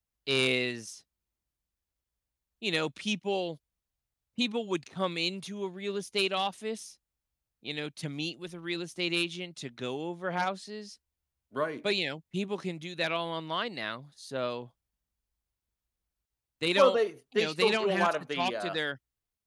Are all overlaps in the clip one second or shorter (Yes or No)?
No